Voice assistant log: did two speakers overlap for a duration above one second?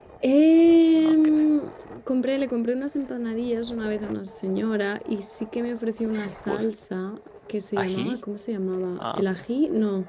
No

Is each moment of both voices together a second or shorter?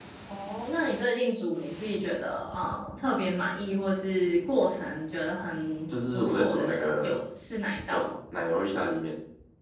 No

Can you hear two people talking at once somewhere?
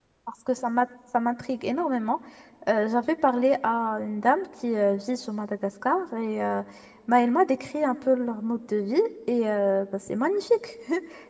No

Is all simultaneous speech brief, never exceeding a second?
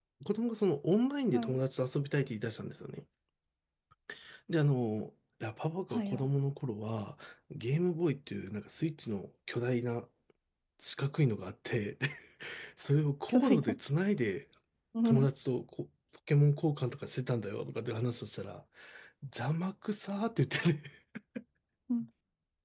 Yes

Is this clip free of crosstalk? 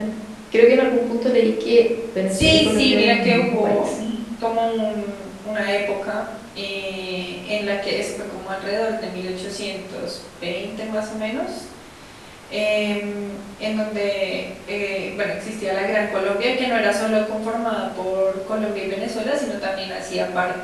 No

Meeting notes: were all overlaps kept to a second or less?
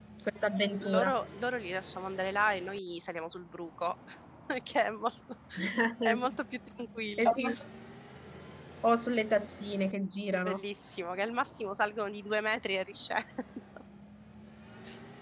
Yes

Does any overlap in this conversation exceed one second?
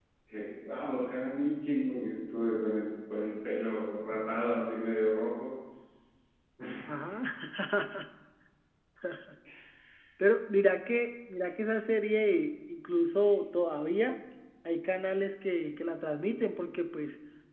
No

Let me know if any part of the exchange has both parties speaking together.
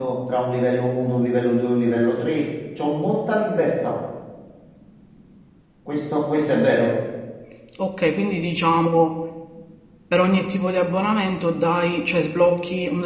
No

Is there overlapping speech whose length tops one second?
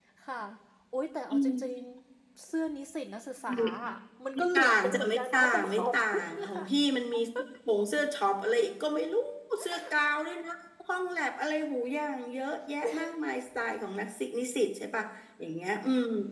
Yes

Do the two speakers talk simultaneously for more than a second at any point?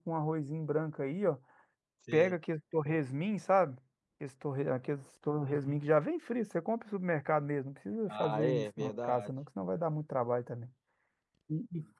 Yes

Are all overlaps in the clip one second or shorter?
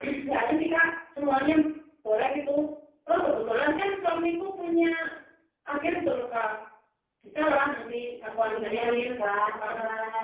No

